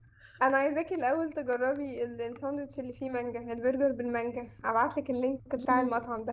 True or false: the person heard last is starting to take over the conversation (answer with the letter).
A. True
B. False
A